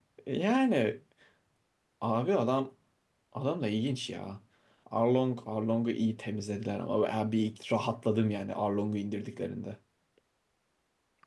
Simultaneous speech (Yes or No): No